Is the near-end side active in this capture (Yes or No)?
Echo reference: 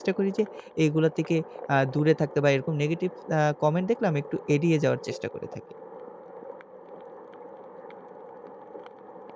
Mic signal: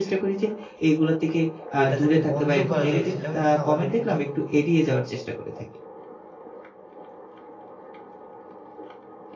Yes